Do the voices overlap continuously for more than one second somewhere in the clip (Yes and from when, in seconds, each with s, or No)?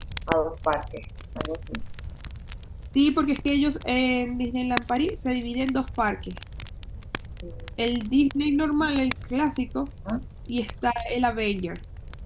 No